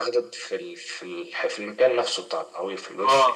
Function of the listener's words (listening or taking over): taking over